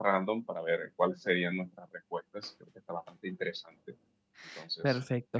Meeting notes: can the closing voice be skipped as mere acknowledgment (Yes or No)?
No